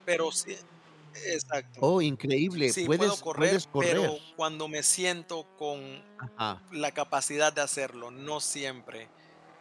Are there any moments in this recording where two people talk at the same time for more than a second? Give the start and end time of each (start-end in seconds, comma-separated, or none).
2.7-4.2